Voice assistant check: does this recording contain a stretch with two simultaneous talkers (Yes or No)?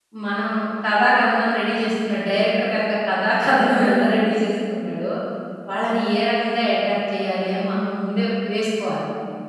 No